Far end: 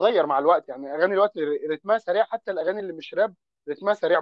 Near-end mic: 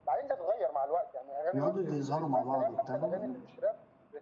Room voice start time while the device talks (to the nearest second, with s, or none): 2 s